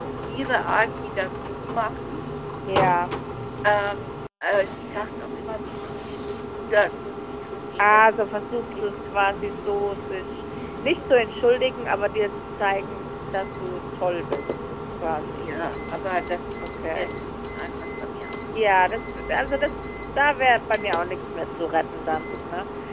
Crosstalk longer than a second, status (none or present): none